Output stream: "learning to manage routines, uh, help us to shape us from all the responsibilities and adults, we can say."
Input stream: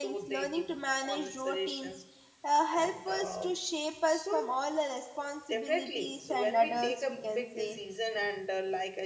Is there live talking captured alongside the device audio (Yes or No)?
Yes